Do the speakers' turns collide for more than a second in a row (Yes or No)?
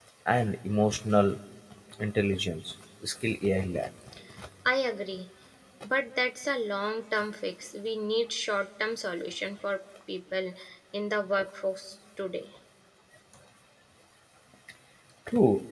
No